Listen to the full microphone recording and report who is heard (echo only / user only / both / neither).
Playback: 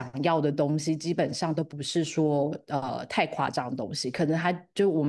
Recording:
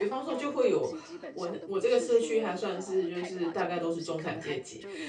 both